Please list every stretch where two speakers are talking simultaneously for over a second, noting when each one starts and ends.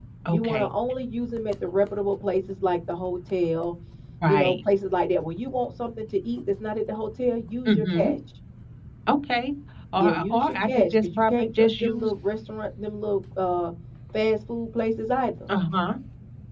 10.0-12.1

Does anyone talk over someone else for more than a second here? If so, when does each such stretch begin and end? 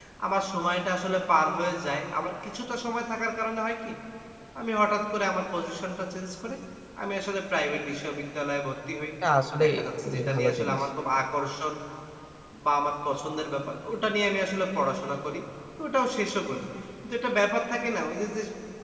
9.6-10.8

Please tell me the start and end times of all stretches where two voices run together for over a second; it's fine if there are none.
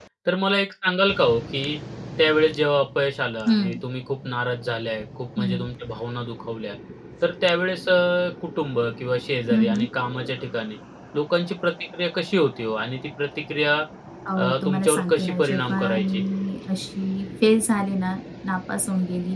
14.4-16.2

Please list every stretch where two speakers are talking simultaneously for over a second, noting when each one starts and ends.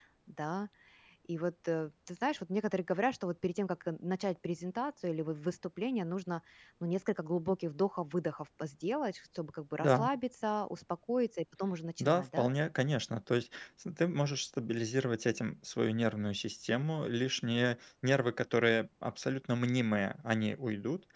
none

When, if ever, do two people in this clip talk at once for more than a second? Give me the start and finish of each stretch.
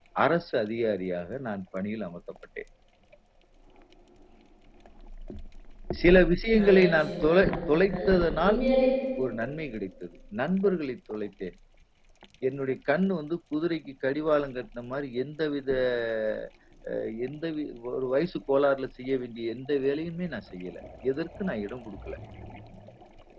6.6-8.0

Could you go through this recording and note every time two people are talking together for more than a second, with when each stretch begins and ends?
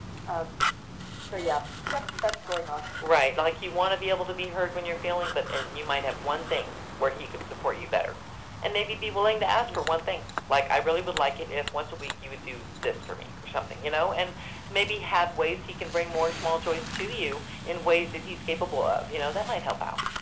none

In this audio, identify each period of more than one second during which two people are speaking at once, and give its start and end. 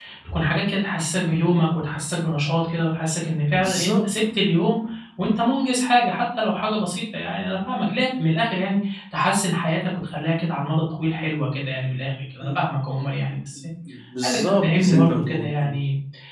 14.2-15.7

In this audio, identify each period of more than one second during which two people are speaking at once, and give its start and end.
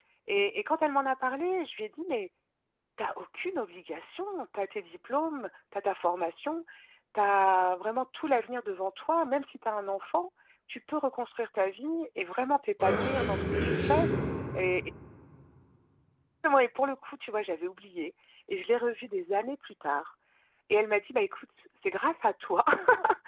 12.8-14.1

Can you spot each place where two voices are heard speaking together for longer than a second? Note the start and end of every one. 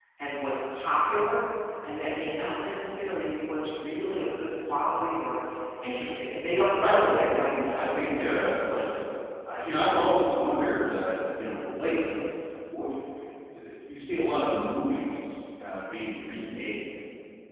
6.8-8.9

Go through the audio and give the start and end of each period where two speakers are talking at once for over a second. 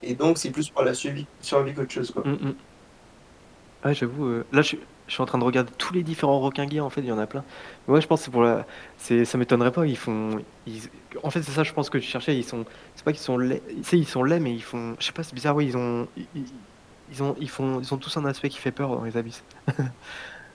none

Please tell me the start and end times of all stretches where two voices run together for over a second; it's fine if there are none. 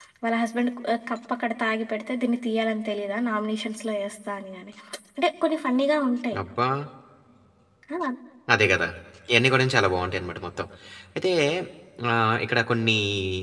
none

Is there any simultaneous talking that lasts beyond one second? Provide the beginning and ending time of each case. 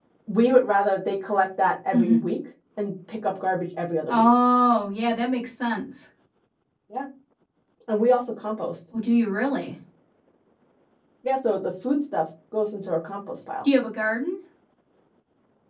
none

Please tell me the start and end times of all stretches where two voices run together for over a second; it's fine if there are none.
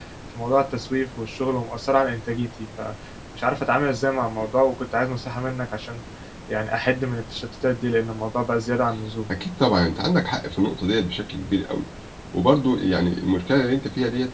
none

